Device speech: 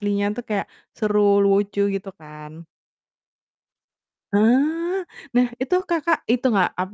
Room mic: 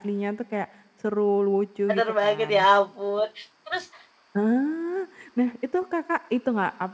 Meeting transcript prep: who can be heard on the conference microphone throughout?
both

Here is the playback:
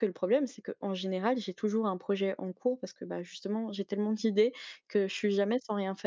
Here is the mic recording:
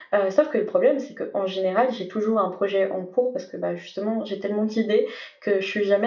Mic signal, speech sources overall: echo only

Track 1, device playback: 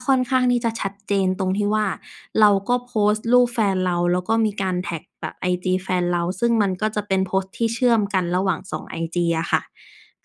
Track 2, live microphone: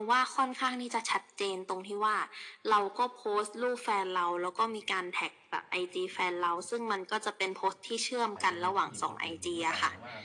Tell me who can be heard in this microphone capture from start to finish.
both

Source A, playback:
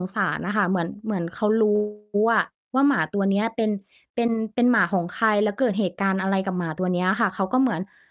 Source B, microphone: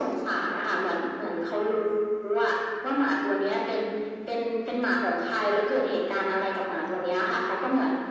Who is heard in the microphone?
echo only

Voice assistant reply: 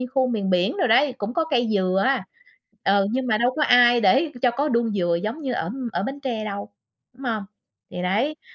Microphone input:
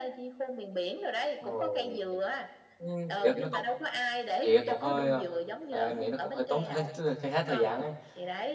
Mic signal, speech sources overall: both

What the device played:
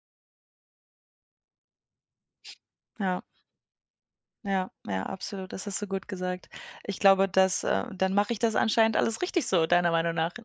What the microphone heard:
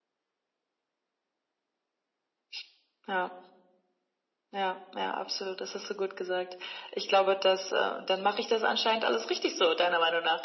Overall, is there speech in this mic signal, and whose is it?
echo only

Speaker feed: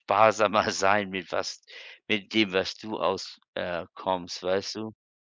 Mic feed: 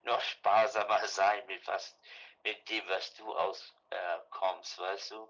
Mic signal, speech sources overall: echo only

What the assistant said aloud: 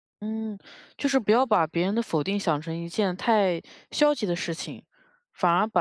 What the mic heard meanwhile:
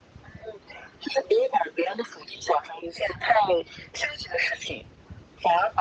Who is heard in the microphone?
echo only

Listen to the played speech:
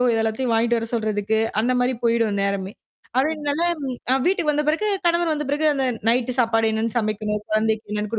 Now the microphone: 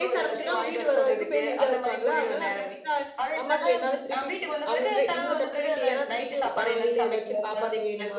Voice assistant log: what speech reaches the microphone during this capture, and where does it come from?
both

